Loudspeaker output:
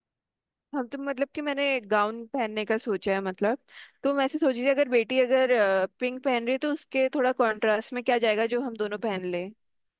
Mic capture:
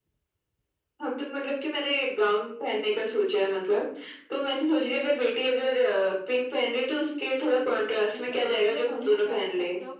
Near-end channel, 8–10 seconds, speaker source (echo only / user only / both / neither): both